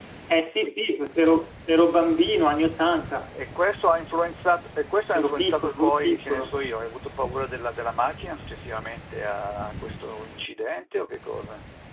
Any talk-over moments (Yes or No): Yes